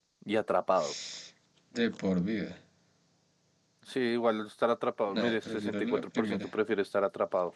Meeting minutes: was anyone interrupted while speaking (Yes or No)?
Yes